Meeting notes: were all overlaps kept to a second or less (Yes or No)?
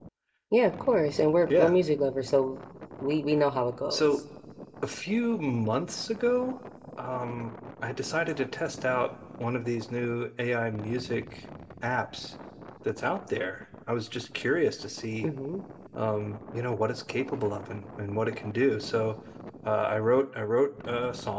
Yes